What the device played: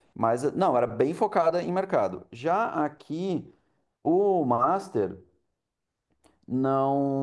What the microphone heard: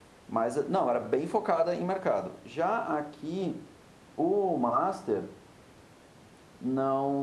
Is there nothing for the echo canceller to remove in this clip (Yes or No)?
No